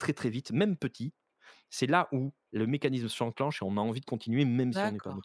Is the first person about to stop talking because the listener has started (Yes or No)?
Yes